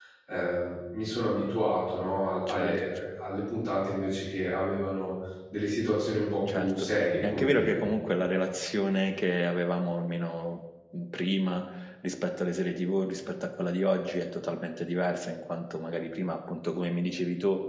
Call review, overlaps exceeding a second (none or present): present